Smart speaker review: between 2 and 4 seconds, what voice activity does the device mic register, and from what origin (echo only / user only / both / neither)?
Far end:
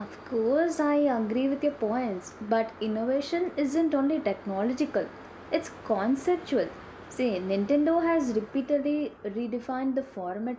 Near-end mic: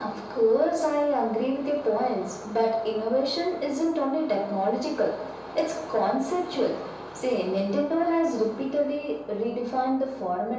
echo only